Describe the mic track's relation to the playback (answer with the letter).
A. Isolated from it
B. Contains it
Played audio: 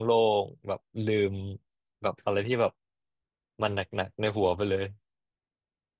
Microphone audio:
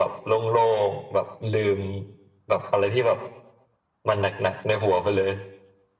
B